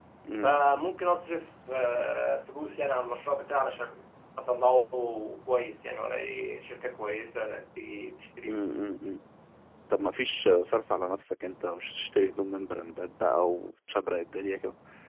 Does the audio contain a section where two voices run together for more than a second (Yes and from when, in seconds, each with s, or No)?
No